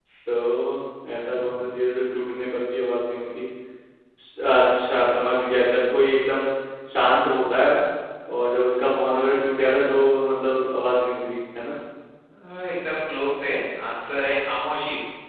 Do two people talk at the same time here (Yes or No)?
No